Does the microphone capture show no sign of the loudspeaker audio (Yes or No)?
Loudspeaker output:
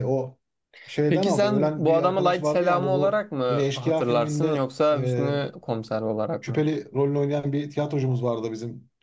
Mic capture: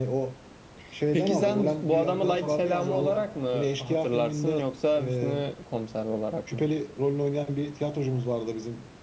No